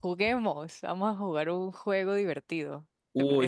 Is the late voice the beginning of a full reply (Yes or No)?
Yes